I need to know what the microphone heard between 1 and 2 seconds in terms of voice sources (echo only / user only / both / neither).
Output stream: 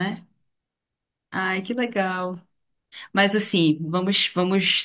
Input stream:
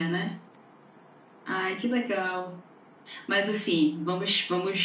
echo only